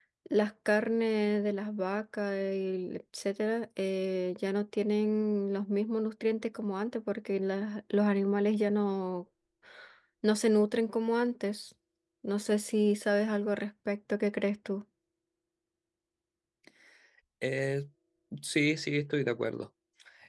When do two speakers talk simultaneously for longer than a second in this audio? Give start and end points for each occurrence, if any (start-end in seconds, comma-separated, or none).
none